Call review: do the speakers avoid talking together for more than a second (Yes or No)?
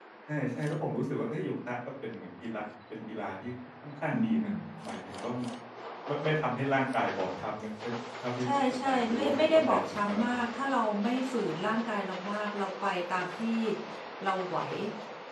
No